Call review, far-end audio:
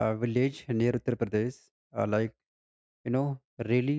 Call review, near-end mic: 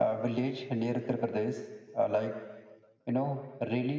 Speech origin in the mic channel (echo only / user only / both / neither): echo only